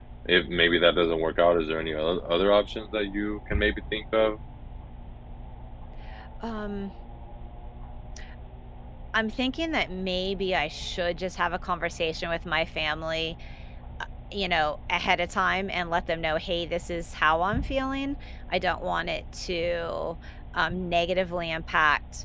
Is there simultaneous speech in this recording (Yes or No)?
No